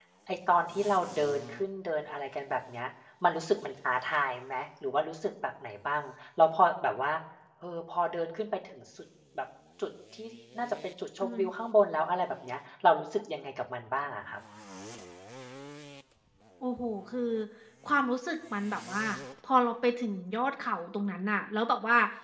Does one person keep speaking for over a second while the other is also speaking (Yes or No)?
No